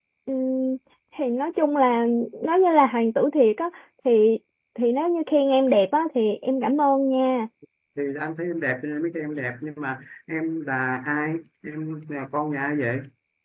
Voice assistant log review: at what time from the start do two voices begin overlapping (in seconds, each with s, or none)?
none